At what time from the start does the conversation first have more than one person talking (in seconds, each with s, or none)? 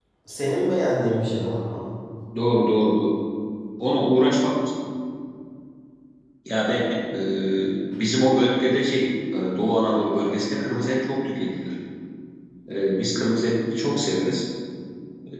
none